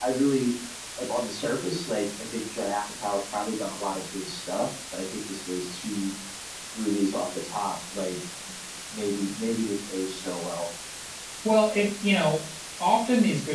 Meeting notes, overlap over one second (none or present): none